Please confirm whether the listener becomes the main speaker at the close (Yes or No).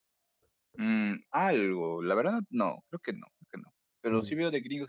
No